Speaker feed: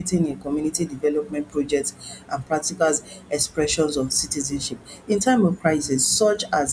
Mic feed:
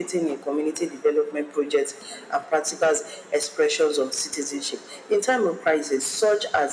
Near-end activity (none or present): none